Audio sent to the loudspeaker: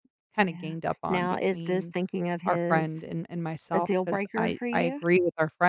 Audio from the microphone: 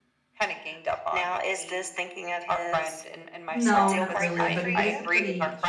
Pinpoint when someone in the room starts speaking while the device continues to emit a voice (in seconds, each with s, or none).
3.5 s